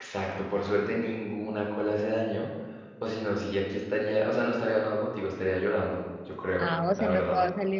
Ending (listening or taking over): taking over